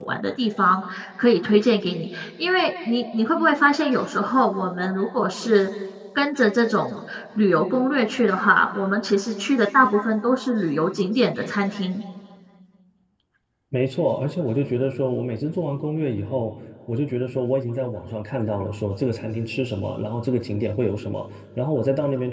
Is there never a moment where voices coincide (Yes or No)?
Yes